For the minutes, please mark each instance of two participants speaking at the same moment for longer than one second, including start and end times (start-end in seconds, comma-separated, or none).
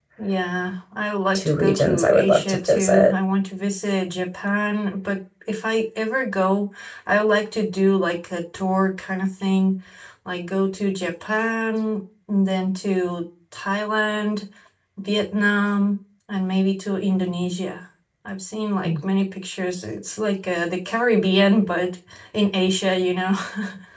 1.3-3.1